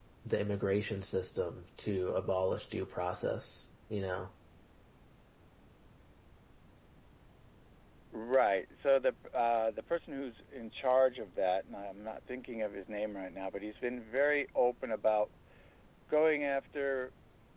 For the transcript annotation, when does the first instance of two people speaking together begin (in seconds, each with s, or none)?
none